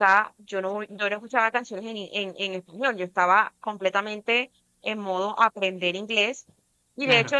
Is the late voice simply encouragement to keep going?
Yes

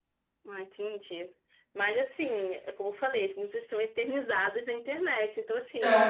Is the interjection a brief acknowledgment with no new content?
Yes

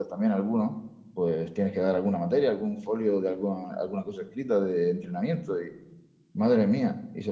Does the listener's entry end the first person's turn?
No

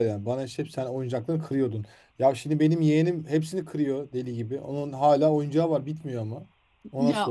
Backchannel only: No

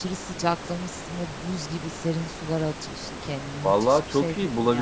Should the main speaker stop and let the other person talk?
Yes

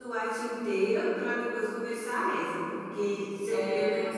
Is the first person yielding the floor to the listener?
No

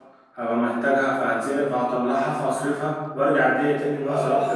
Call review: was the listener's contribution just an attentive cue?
No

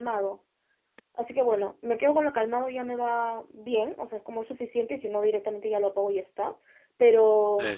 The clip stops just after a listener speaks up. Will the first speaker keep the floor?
Yes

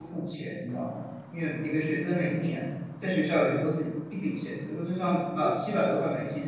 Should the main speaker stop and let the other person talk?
Yes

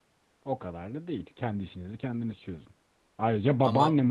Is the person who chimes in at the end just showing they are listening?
Yes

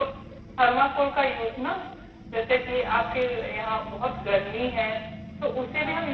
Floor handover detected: No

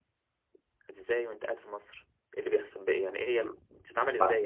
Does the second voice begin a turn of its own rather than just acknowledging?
Yes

